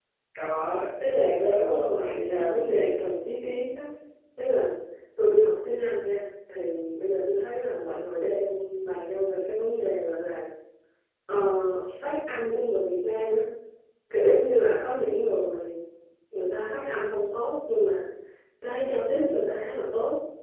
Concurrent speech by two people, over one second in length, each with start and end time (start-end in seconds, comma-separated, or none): 1.2-2.9